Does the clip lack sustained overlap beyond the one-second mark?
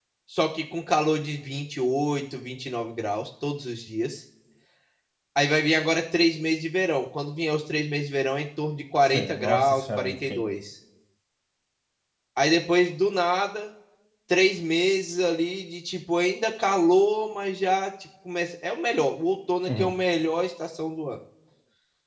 No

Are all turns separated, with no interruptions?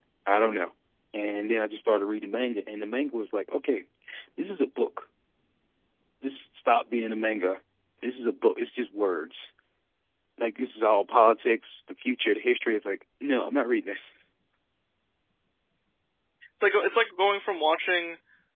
Yes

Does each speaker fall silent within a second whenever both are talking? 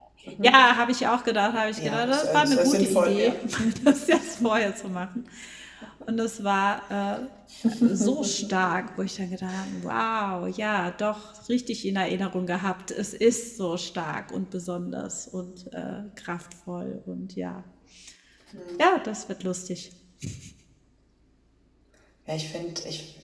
No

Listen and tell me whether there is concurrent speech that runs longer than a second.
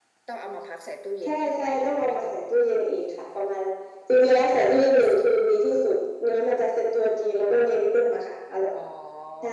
Yes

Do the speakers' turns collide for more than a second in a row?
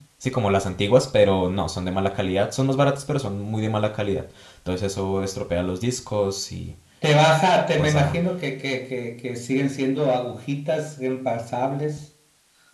No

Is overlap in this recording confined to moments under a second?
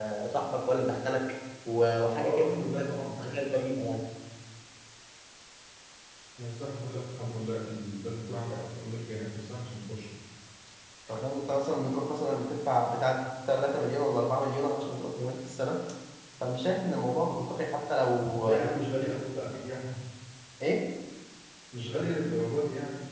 Yes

